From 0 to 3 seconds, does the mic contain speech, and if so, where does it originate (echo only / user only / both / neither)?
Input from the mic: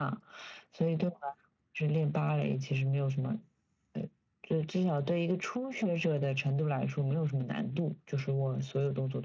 echo only